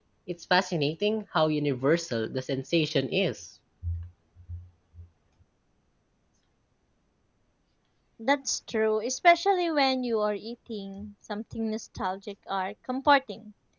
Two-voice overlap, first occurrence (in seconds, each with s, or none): none